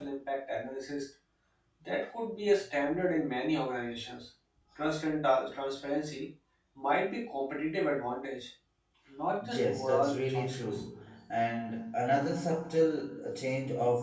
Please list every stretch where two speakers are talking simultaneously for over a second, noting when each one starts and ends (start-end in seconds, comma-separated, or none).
9.5-10.8